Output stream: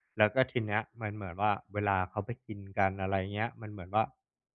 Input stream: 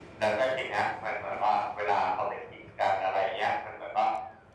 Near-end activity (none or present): none